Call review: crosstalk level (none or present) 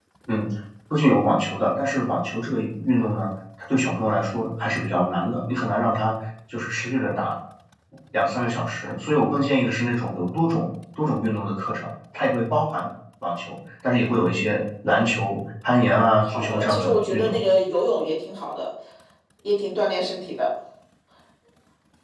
present